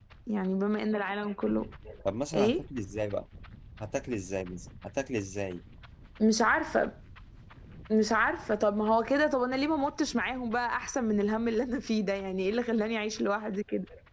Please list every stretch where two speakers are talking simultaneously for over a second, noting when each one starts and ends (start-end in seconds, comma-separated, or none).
none